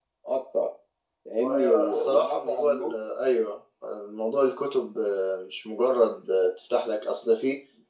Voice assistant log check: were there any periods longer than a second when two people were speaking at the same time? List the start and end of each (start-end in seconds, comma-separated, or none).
1.5-2.9